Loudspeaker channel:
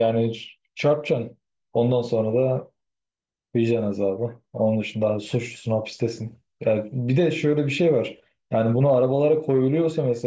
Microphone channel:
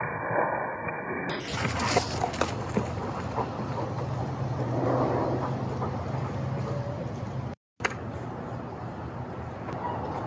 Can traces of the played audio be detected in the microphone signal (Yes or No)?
No